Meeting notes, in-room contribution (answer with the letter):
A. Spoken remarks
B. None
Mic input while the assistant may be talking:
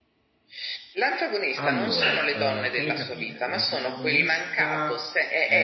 A